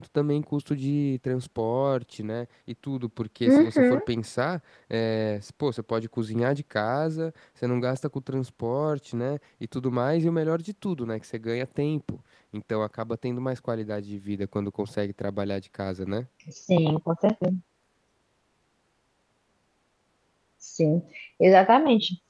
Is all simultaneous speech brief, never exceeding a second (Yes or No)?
Yes